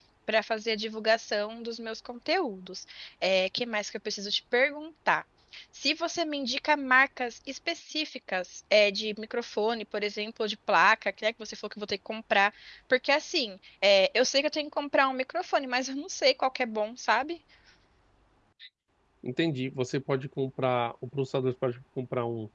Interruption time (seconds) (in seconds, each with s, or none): none